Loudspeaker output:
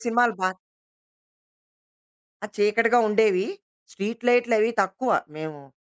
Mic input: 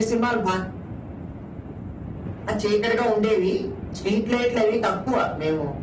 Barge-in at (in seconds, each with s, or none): none